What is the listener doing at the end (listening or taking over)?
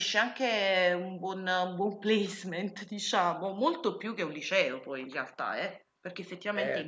taking over